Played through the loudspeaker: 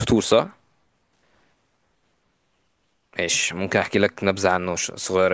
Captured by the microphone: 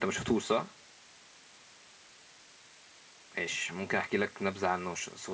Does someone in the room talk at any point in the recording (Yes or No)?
No